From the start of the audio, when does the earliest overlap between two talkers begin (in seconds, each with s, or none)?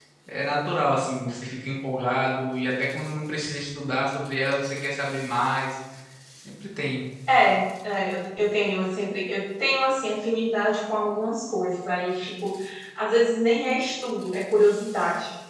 none